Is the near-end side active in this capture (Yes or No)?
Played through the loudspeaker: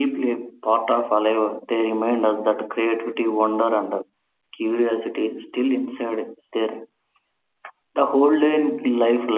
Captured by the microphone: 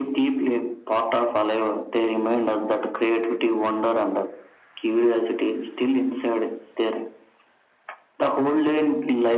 No